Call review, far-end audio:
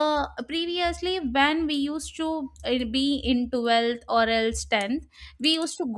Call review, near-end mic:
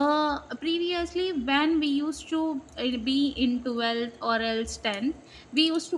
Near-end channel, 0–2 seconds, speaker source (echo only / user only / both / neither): echo only